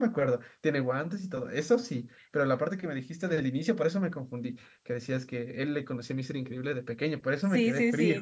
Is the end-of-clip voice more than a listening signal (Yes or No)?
Yes